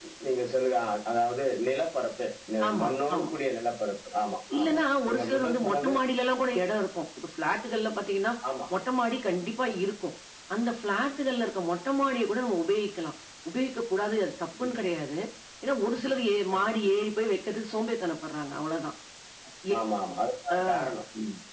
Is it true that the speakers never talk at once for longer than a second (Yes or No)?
No